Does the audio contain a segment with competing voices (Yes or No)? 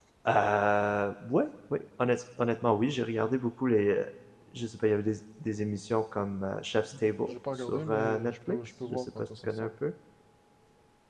Yes